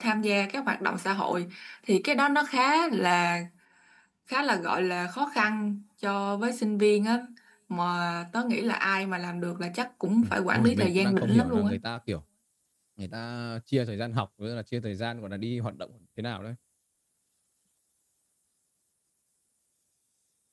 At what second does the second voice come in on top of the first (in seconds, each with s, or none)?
10.2 s